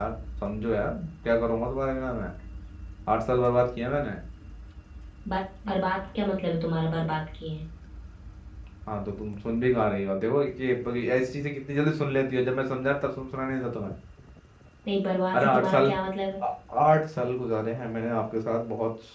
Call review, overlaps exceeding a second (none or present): none